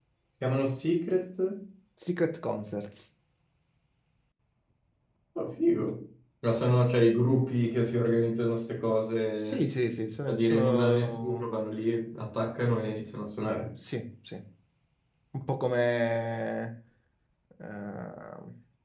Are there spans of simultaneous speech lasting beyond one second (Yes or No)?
Yes